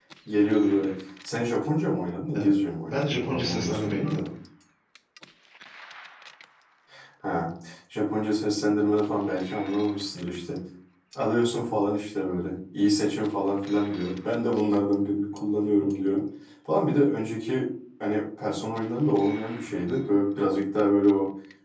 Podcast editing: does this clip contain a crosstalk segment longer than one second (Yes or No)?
Yes